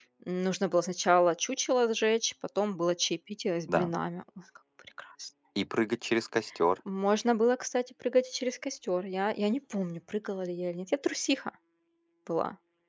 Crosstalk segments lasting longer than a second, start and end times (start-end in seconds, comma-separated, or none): none